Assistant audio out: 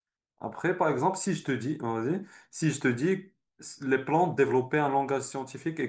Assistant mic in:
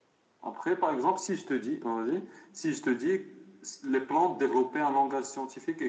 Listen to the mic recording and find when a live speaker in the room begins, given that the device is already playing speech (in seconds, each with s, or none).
none